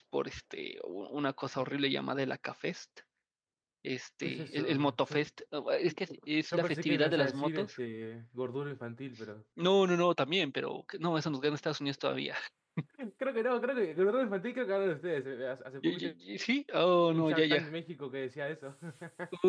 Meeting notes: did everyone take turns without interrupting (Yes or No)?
No